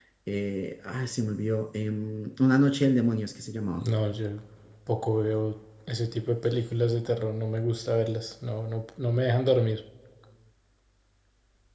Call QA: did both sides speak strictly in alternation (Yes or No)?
Yes